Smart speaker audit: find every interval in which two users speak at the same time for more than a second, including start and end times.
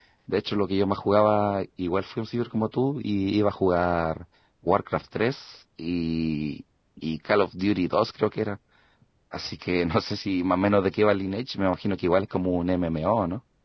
none

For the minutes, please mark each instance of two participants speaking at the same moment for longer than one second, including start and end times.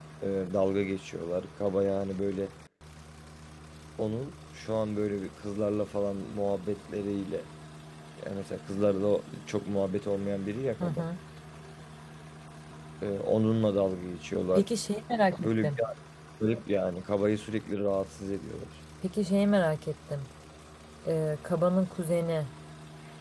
none

